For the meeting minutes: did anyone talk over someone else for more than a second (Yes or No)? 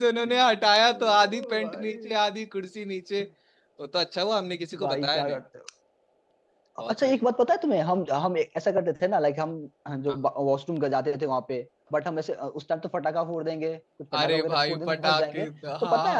Yes